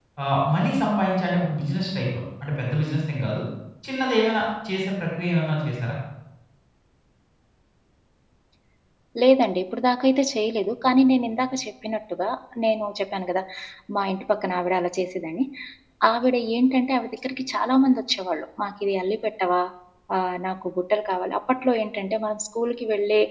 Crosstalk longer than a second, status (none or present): none